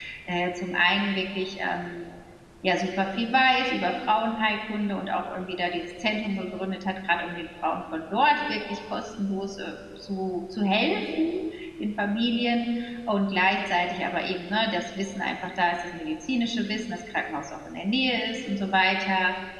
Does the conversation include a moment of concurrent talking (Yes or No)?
No